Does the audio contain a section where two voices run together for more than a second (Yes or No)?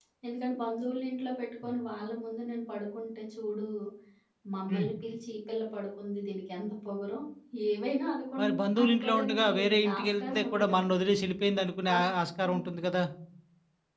Yes